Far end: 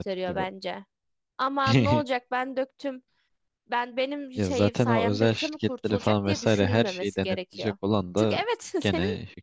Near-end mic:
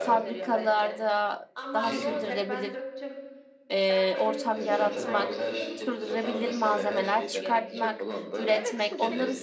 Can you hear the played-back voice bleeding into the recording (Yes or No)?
Yes